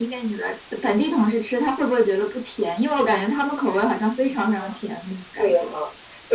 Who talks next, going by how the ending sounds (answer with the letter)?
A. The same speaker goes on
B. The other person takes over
B